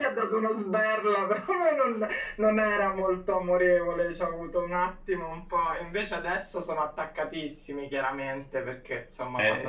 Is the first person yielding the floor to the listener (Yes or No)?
Yes